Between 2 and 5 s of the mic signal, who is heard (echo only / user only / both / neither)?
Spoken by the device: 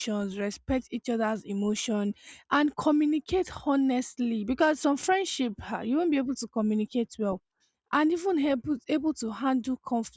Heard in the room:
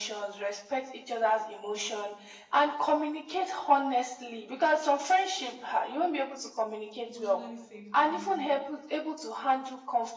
echo only